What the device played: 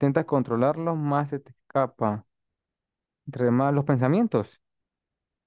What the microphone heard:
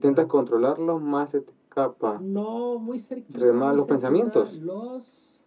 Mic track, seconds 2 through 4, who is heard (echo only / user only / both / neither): both